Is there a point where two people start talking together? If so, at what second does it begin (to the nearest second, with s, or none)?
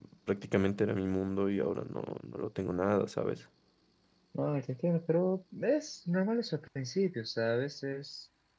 none